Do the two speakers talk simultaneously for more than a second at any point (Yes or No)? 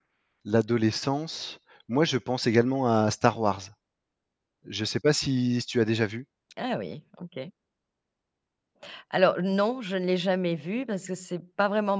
No